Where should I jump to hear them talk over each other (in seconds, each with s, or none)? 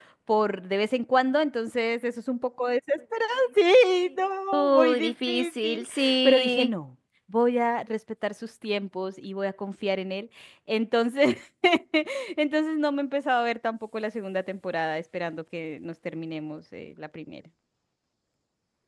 4.5 s